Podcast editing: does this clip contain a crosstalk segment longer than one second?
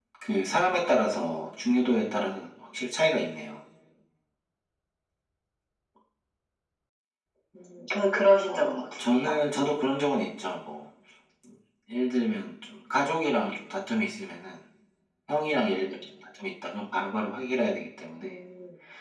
Yes, from 8.5 s

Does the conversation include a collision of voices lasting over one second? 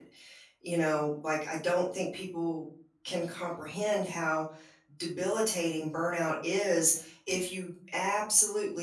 No

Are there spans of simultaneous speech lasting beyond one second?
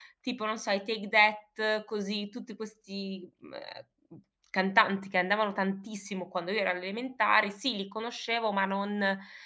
No

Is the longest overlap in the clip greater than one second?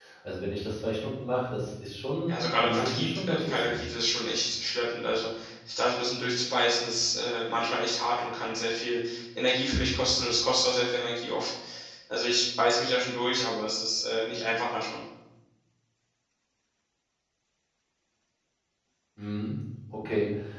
Yes, from 2.3 s

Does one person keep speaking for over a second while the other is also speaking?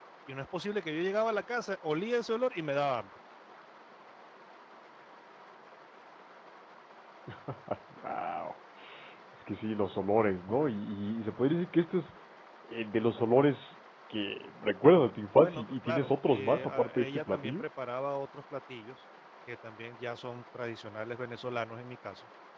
Yes, from 15.4 s

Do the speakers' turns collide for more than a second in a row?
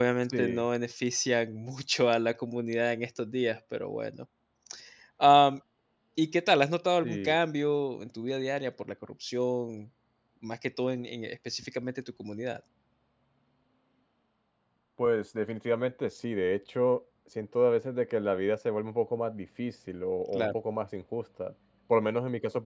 No

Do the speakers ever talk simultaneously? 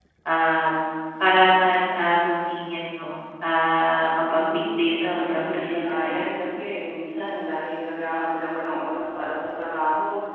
Yes, from 4.3 s

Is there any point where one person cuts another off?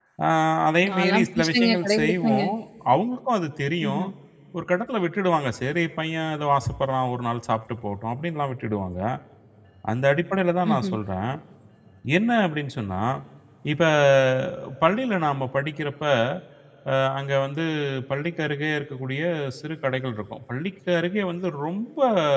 Yes, from 0.9 s

